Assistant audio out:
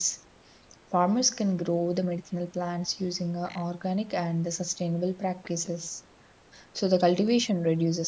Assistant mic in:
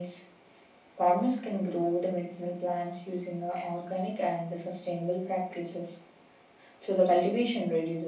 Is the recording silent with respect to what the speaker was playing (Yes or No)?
No